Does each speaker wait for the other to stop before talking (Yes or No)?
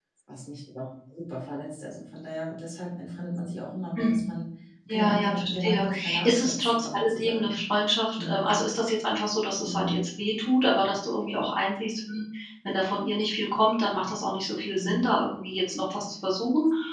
No